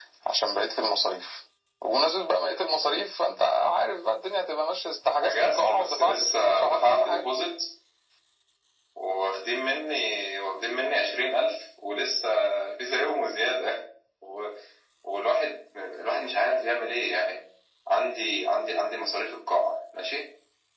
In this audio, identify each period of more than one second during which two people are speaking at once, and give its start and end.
5.2-7.2

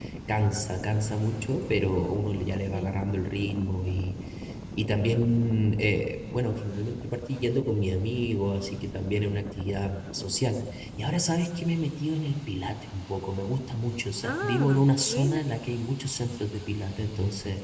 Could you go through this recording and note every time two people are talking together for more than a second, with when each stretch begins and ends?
14.2-15.4

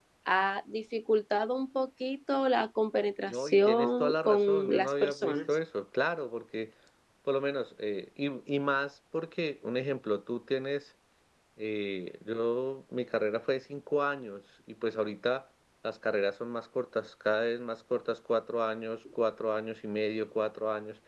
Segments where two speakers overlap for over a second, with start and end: 3.3-5.4

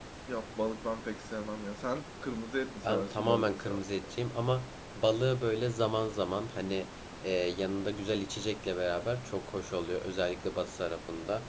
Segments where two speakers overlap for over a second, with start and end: 2.9-4.1

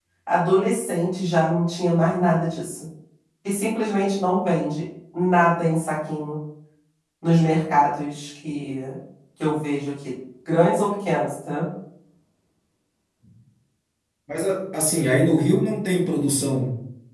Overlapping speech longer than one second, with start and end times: none

